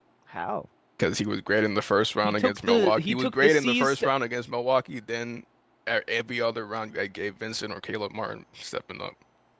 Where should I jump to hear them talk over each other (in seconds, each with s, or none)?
2.2 s